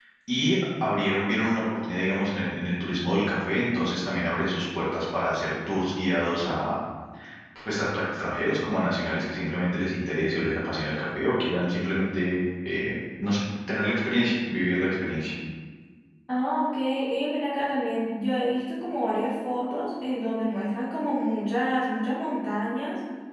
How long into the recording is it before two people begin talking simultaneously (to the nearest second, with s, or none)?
none